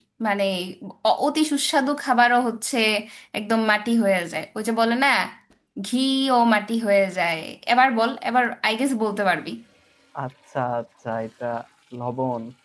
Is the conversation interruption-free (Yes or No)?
Yes